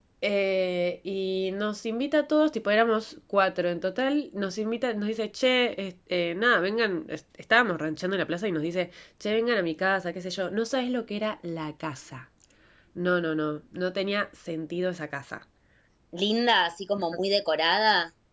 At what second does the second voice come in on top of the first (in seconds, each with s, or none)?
none